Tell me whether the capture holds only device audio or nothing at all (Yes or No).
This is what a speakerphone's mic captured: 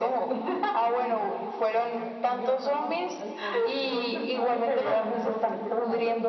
No